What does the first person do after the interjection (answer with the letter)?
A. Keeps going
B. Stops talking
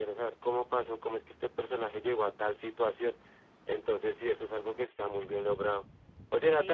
A